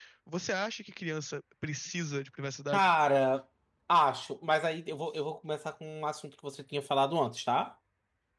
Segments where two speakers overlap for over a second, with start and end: none

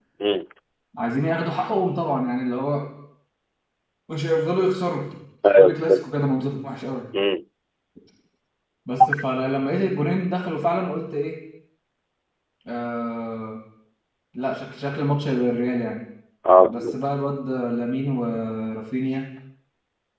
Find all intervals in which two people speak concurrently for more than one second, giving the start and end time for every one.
none

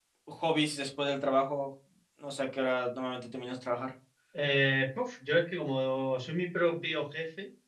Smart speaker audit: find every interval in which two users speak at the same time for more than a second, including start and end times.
none

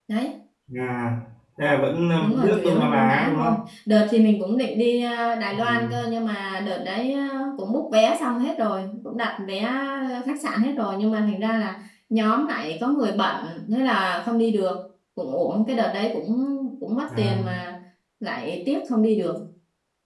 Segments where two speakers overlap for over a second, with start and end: 2.2-3.6

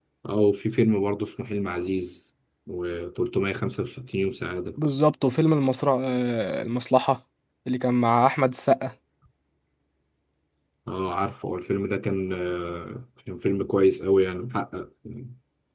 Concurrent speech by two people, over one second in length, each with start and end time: none

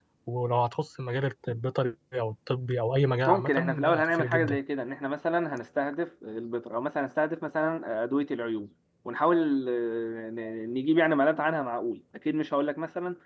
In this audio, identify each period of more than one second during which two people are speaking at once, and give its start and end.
3.3-4.6

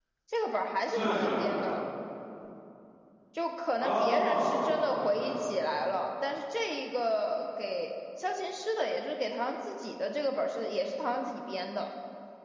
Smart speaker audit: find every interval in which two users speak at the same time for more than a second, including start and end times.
3.8-5.3

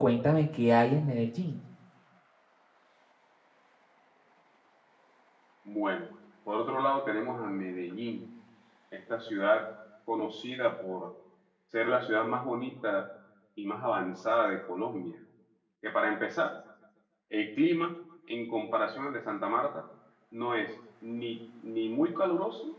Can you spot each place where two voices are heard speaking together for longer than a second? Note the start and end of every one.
none

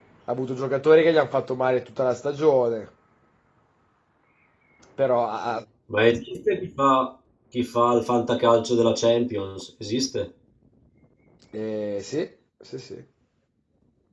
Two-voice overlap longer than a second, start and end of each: none

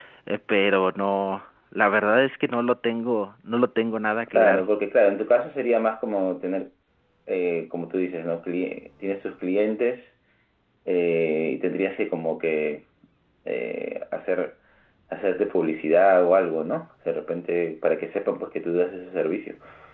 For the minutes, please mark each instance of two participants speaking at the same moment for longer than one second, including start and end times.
none

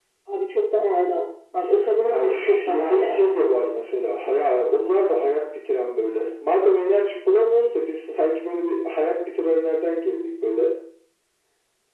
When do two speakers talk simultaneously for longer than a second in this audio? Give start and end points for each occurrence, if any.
2.1-3.4

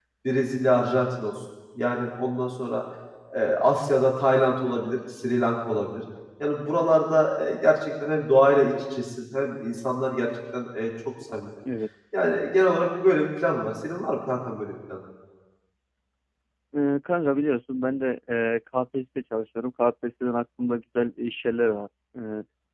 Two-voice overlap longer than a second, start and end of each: none

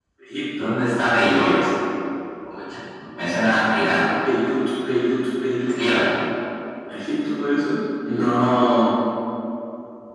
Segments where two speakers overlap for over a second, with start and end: none

